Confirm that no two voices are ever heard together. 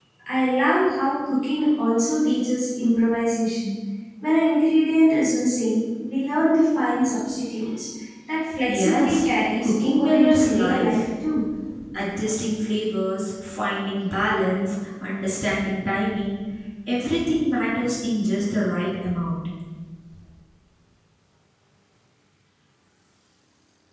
No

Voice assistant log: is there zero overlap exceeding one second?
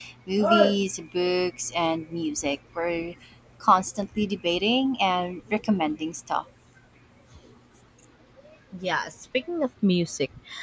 Yes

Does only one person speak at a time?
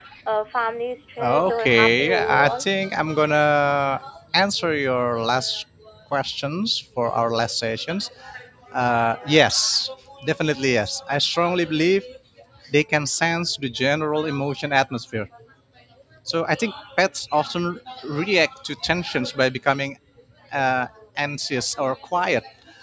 No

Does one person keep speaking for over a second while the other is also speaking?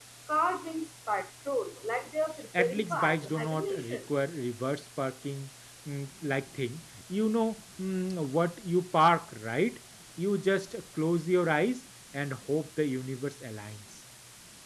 Yes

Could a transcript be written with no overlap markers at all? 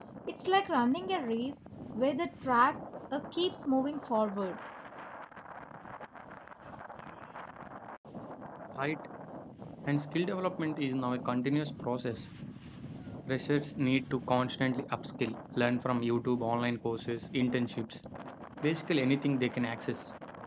Yes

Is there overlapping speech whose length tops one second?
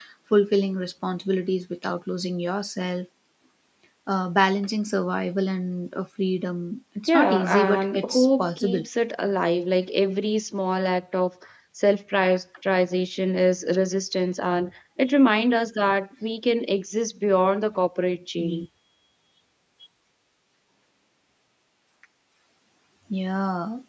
Yes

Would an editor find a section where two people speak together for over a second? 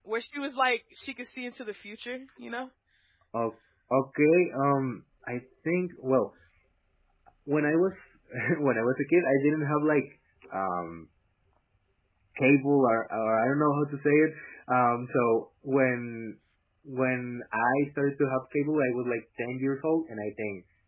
No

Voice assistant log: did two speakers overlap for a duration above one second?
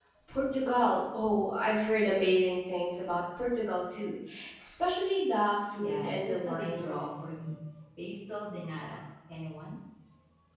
Yes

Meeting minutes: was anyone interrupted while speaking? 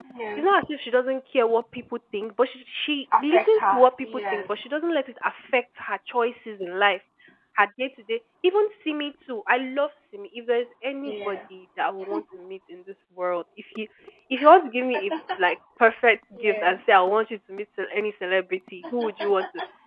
Yes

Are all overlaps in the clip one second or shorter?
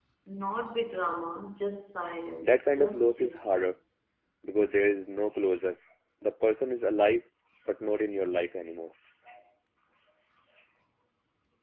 No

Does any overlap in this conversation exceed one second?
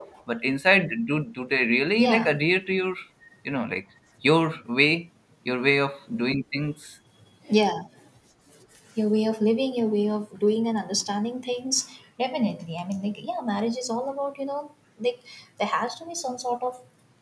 No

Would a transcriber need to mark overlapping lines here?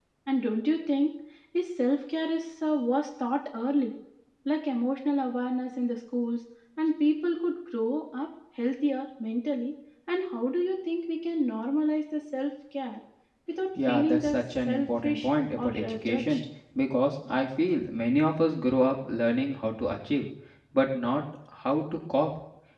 Yes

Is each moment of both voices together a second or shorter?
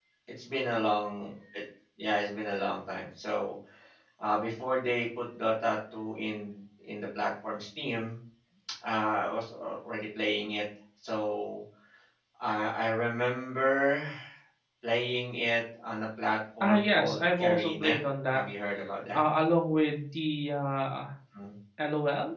No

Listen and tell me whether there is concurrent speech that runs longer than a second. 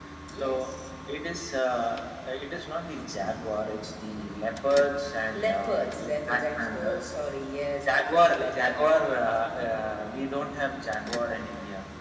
Yes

